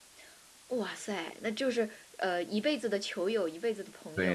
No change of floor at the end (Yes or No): No